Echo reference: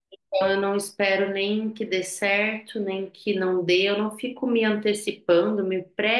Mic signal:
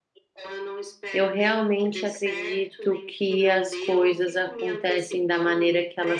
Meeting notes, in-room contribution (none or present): present